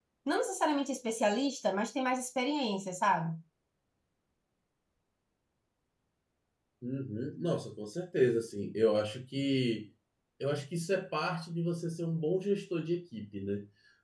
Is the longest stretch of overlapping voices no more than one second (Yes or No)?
Yes